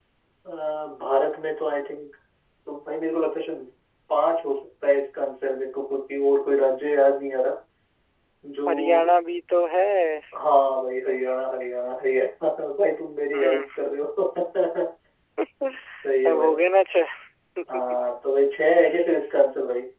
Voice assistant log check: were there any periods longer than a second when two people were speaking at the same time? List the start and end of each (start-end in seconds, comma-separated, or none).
none